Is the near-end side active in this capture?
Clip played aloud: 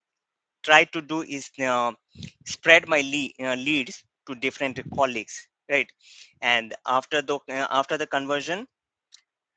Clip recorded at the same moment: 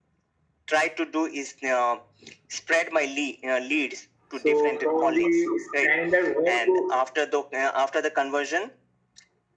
Yes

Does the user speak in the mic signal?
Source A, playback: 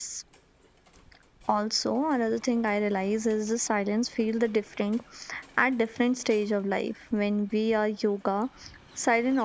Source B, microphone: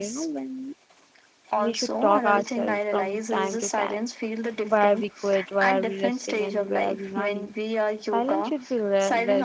Yes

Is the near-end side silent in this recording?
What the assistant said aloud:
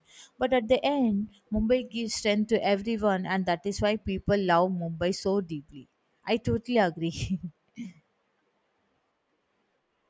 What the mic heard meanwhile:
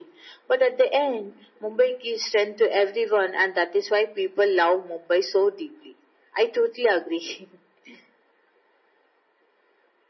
Yes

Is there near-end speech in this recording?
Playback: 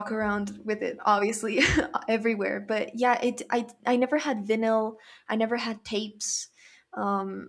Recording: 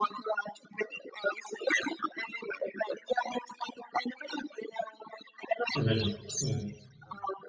Yes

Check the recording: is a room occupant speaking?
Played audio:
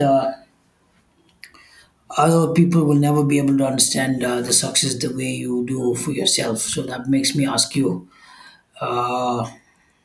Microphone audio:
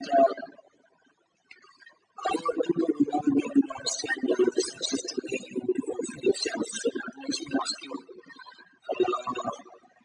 No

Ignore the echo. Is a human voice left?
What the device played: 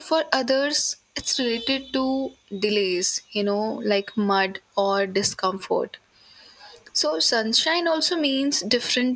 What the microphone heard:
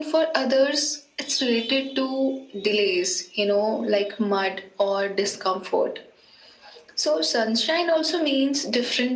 No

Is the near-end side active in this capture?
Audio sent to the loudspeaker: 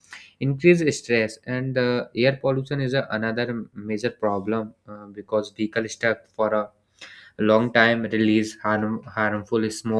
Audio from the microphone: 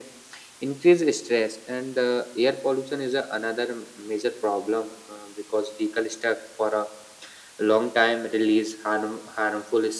No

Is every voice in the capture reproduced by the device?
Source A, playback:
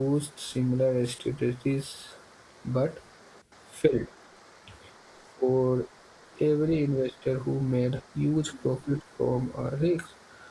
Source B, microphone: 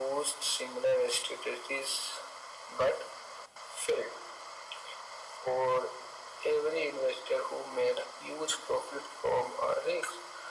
Yes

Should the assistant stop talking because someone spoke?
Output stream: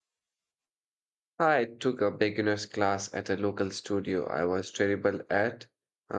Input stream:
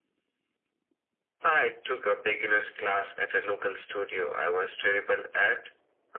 No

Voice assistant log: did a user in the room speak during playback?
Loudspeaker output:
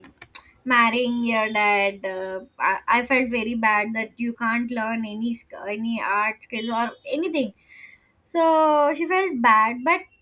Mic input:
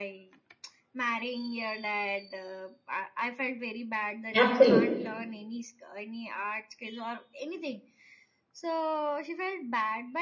Yes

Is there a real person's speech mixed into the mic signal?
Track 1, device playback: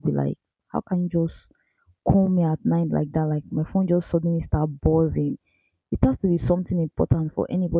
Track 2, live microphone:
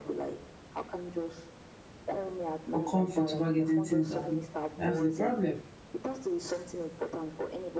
Yes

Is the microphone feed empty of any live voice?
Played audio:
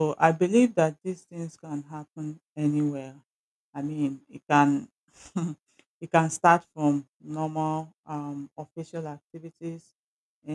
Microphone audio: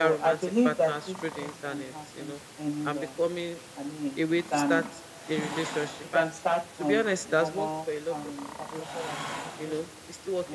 No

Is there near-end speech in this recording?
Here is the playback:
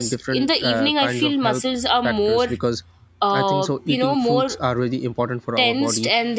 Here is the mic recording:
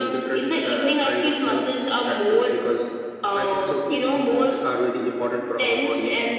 No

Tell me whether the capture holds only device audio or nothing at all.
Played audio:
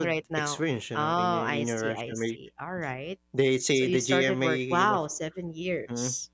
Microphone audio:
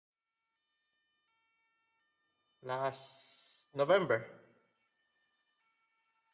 No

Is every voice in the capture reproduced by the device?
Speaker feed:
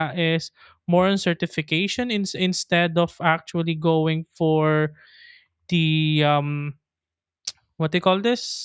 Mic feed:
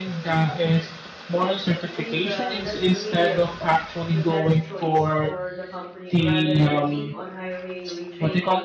No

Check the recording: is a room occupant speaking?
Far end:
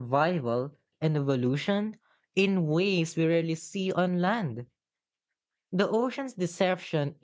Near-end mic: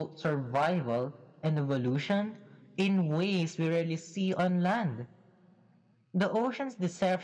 No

